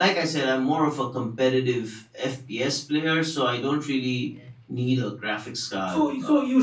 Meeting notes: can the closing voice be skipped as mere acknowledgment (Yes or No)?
No